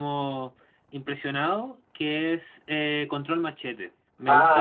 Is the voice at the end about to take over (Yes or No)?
No